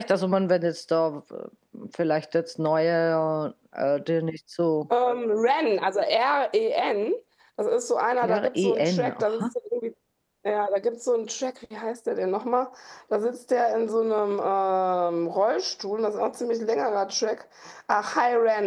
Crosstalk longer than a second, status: present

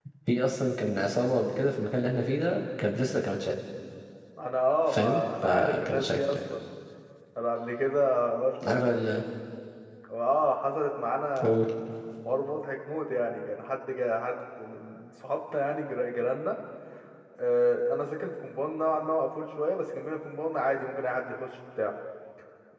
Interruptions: present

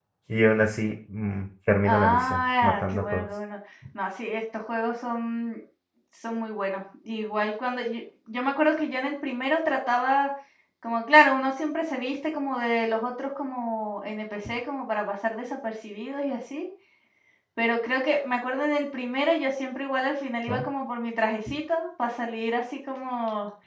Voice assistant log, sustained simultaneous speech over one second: present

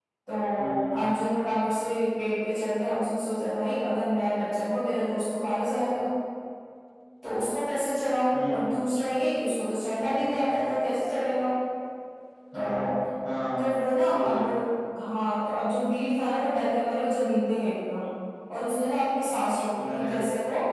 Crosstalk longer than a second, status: none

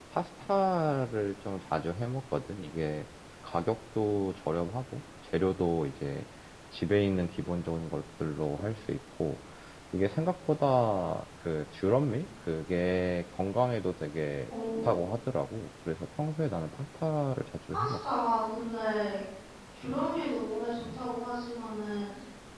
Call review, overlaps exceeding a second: none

